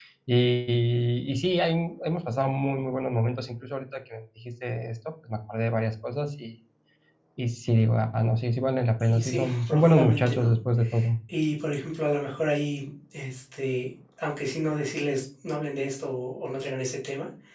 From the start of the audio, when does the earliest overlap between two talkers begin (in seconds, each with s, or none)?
9.0 s